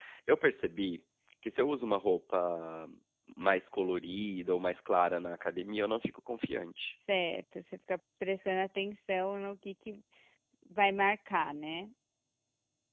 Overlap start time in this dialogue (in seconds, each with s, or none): none